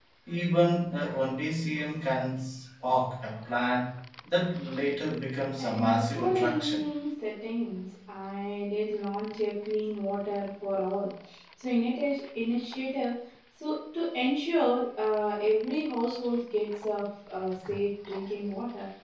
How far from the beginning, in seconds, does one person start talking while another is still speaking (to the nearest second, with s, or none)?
6 s